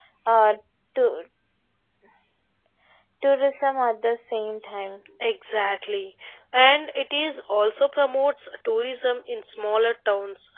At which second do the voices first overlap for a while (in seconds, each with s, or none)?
none